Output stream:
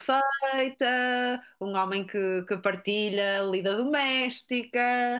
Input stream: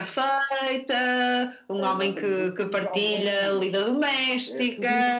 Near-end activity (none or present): present